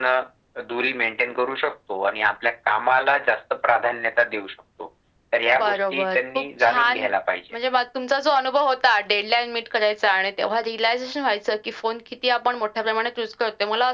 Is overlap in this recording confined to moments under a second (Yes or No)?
No